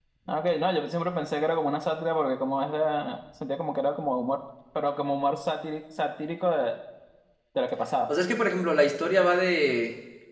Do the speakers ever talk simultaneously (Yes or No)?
No